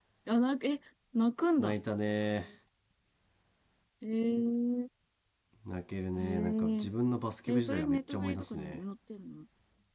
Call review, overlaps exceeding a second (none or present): present